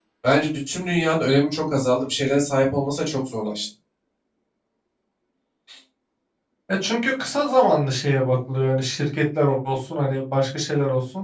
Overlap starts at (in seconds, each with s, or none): none